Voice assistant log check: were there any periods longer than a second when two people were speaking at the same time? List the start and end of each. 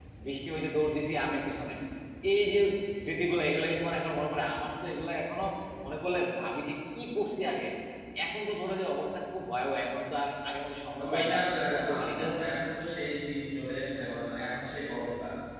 11.0-12.3

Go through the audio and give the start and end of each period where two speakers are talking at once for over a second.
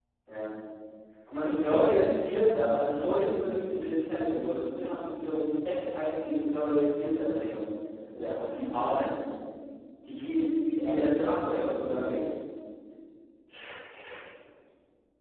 10.8-12.2

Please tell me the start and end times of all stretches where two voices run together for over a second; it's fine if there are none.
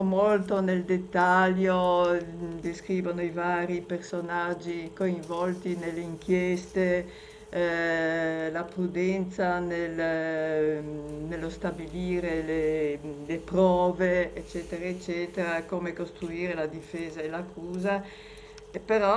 none

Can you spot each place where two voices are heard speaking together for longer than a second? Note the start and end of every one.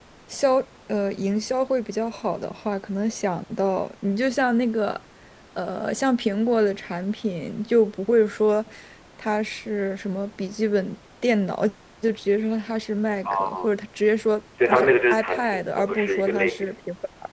14.7-16.7

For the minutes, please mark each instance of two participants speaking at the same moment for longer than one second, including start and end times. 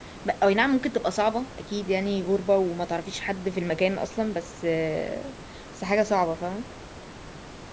none

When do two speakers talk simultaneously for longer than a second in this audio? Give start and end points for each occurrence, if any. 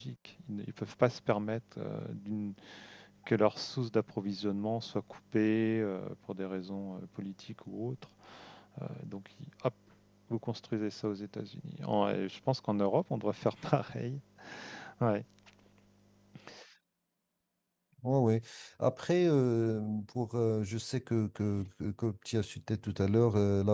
none

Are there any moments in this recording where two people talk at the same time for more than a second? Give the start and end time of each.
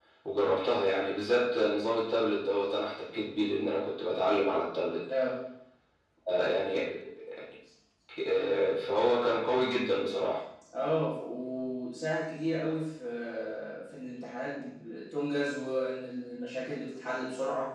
none

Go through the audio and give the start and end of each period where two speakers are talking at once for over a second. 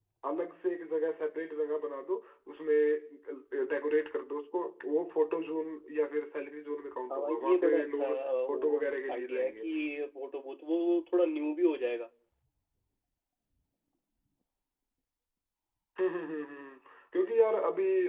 7.1-9.7

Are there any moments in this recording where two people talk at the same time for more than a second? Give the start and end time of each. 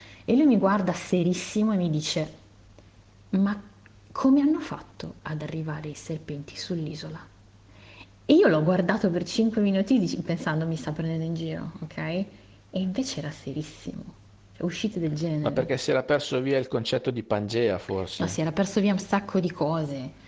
none

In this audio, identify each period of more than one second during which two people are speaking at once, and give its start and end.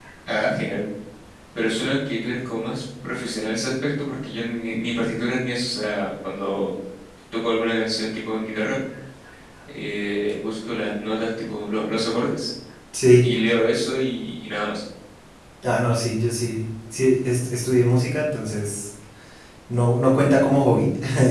none

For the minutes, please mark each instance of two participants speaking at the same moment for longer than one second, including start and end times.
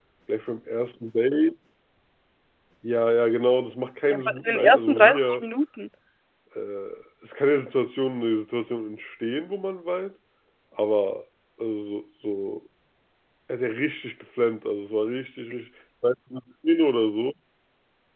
4.1-5.4

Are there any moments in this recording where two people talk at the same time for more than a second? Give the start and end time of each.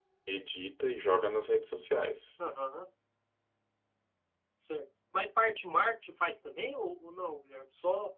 none

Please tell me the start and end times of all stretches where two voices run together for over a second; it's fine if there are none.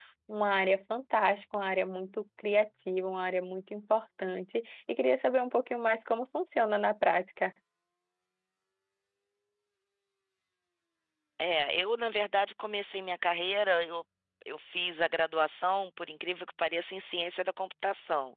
none

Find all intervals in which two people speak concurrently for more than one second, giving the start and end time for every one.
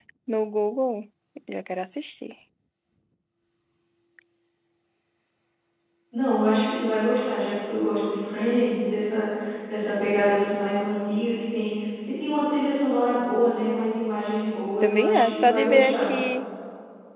14.8-16.1

